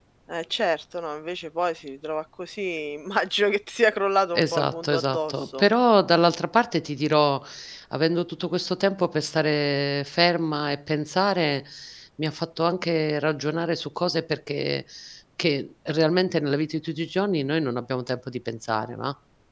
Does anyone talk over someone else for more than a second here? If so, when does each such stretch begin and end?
4.3-5.7

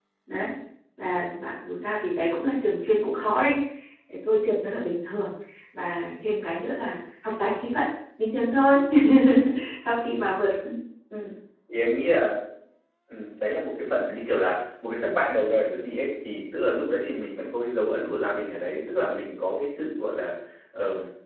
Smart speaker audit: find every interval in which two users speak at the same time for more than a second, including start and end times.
none

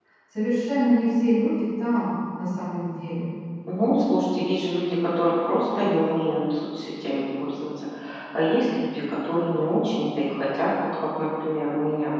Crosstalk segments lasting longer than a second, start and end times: none

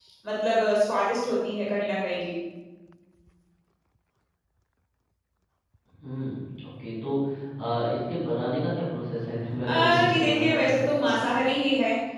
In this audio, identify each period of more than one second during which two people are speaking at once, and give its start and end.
9.6-11.3

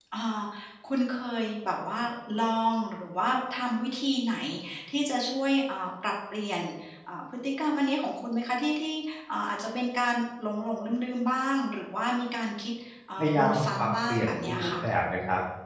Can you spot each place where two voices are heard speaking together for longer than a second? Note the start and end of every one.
13.2-14.7

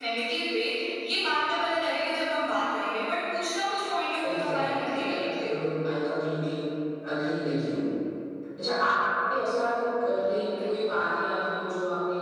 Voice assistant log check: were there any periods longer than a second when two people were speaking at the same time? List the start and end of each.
4.2-5.6

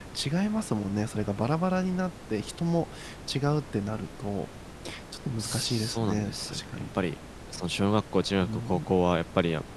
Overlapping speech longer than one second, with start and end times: 5.4-6.6

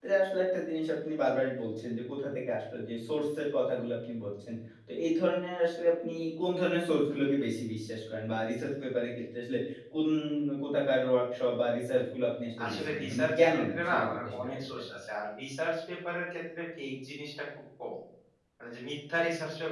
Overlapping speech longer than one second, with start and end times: 12.7-14.8

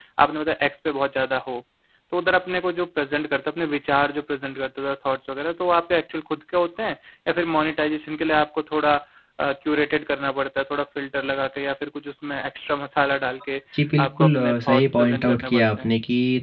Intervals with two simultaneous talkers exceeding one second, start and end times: 14.0-15.9

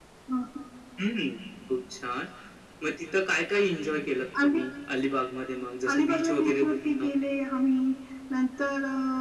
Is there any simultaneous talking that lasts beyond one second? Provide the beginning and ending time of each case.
5.9-7.2

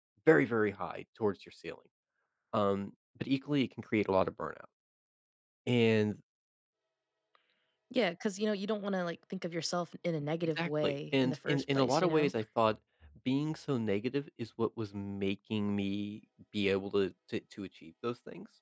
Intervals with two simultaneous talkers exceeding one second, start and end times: 10.6-12.3

